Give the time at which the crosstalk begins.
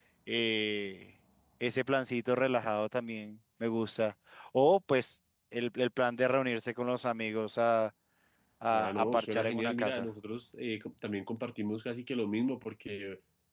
8.8 s

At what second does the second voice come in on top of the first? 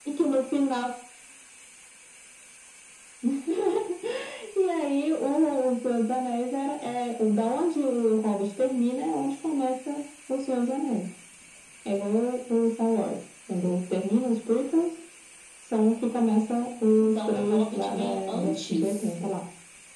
16.9 s

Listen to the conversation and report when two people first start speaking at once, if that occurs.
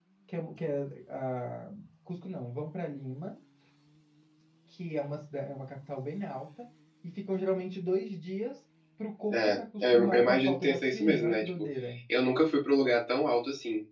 9.3 s

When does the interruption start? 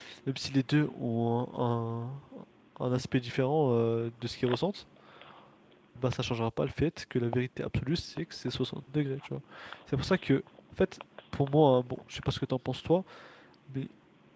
none

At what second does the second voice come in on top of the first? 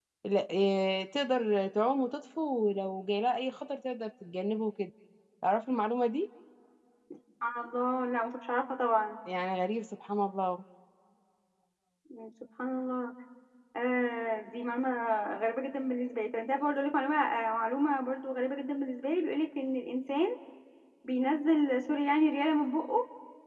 none

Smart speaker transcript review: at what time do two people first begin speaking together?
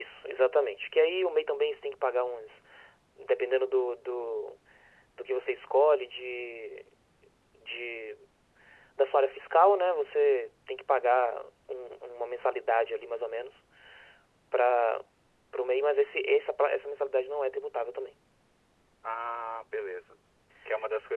none

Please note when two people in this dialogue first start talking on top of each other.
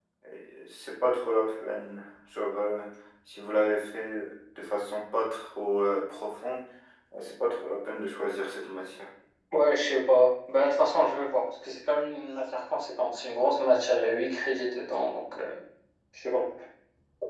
none

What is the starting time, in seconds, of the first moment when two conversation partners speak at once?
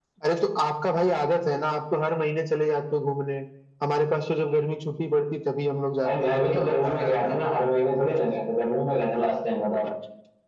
6.0 s

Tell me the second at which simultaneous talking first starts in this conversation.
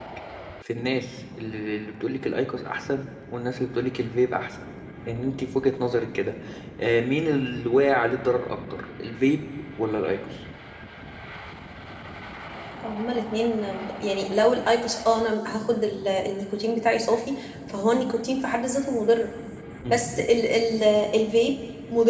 none

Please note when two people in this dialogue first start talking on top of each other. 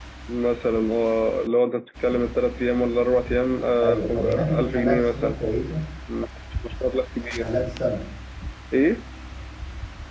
3.8 s

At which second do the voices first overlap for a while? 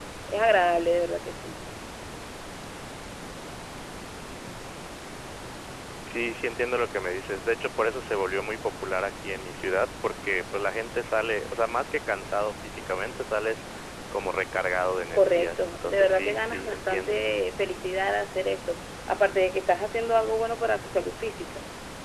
15.1 s

